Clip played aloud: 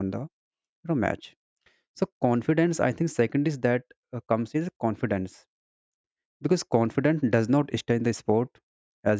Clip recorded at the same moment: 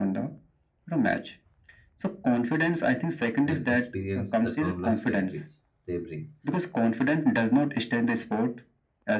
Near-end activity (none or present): present